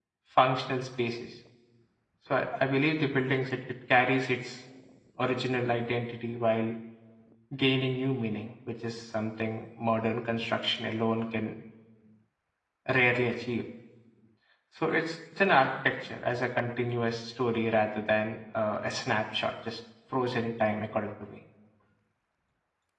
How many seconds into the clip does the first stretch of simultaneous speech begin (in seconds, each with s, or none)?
none